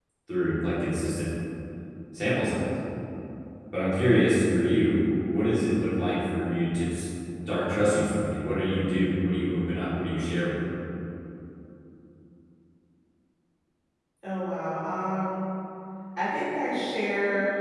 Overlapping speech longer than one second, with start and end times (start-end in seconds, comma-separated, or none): none